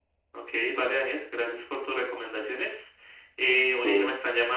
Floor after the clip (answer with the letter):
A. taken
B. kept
B